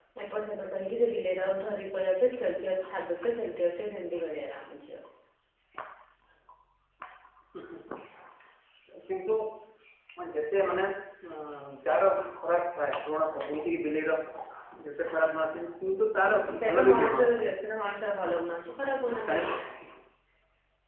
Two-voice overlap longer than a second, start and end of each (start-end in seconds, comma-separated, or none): 16.3-17.5